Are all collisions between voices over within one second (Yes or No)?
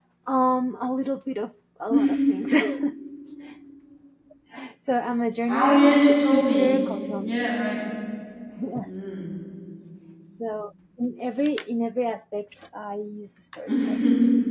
No